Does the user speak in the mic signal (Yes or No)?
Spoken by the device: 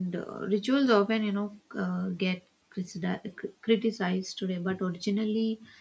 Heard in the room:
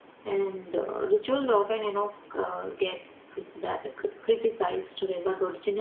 No